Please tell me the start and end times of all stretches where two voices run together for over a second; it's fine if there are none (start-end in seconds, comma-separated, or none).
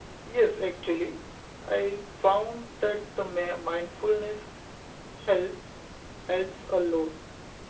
none